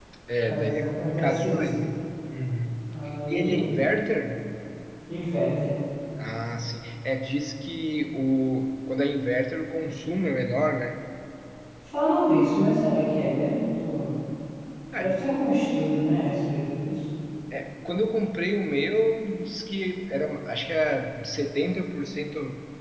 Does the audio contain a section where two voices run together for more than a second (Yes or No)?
Yes